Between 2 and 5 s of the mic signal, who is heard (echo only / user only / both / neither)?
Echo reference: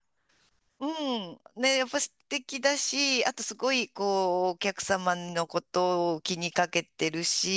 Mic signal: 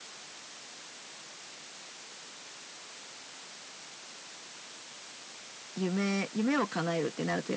neither